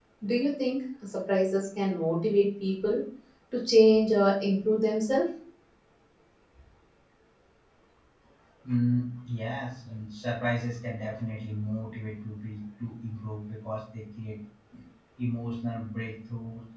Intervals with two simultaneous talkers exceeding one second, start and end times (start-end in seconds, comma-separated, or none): none